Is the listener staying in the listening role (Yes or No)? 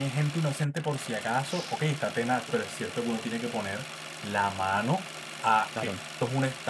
Yes